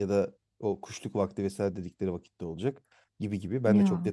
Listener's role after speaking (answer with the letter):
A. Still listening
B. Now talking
A